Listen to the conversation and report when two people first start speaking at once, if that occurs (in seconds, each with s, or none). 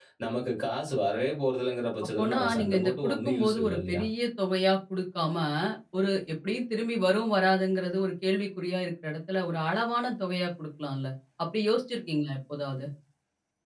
2.2 s